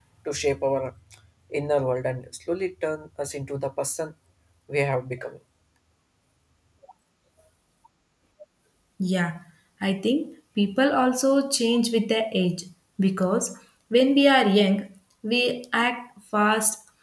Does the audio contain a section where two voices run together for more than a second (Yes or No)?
No